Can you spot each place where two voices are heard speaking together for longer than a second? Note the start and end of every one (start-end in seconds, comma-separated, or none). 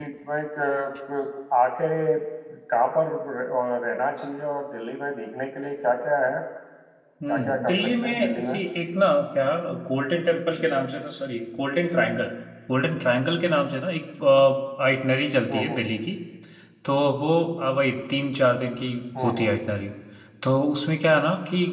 7.3-8.6